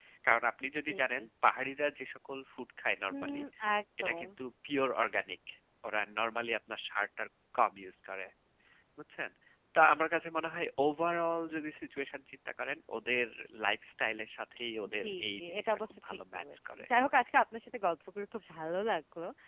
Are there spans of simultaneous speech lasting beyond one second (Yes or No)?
Yes